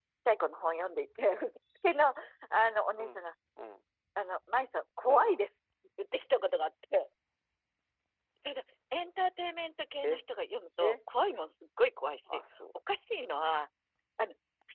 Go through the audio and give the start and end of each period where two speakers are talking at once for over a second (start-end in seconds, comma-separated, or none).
none